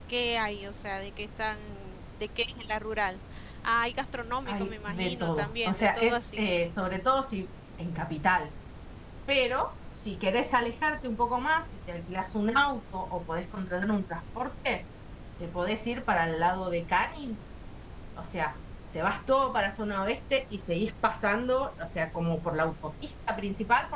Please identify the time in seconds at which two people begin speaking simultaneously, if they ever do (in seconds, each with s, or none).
4.5 s